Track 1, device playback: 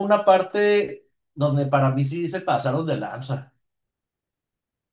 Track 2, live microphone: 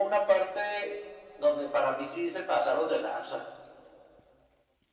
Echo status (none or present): present